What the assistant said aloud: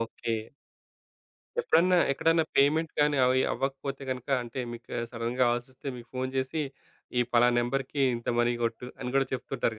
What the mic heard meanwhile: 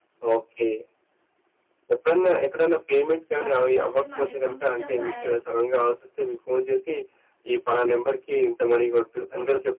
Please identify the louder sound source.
echo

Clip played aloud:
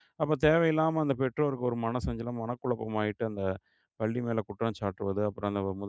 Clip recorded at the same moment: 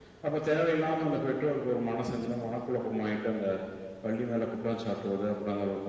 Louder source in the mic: echo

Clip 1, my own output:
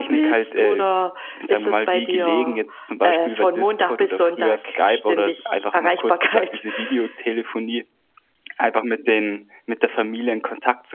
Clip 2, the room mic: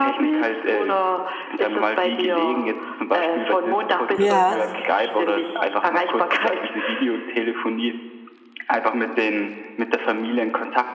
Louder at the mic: user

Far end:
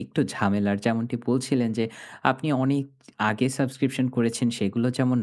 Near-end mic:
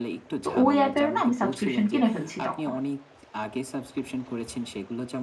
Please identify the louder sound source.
user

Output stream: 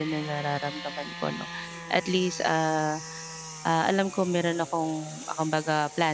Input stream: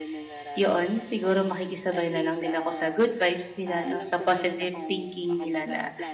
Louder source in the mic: user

